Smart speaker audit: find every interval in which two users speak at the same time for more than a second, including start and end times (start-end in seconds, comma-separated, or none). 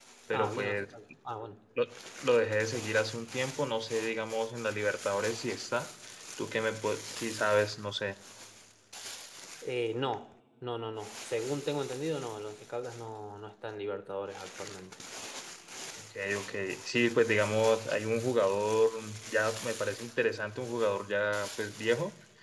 none